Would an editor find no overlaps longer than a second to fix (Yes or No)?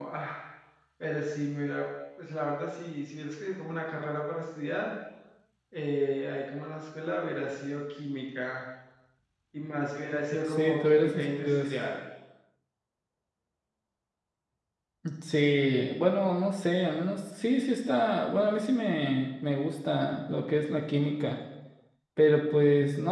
No